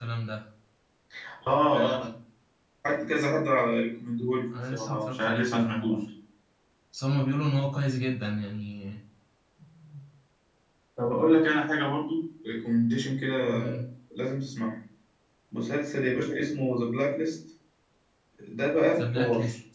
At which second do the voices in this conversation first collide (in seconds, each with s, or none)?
4.7 s